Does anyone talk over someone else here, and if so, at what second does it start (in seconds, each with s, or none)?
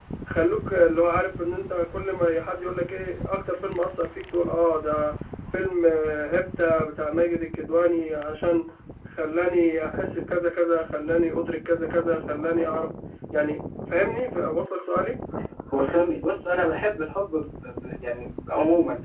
none